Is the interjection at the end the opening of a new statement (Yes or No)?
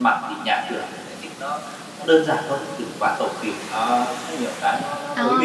Yes